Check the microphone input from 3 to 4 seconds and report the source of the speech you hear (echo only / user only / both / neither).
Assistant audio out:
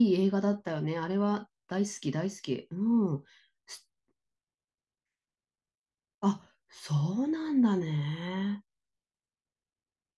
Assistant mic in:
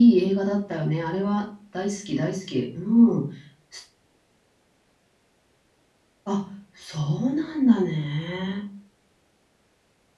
echo only